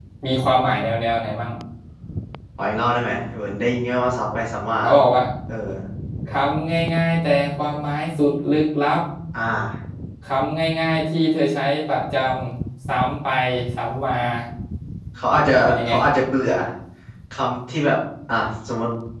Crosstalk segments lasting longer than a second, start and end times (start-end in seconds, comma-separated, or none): none